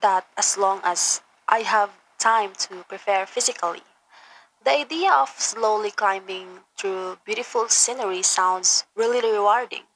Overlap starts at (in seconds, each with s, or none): none